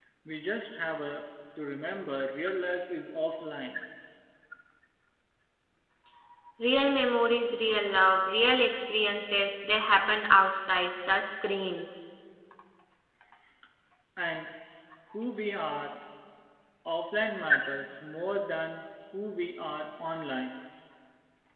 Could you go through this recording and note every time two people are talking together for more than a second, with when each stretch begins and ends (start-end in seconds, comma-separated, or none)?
none